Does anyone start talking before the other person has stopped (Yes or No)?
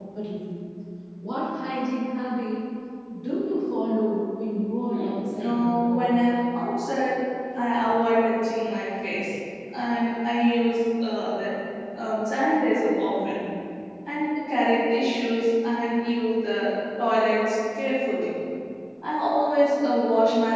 Yes